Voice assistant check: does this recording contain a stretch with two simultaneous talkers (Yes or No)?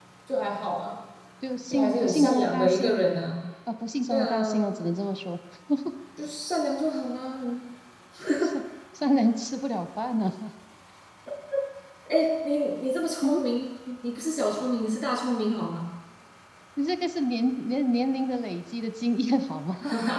Yes